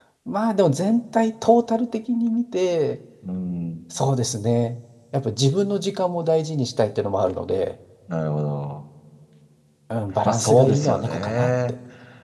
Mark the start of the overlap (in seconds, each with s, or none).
10.2 s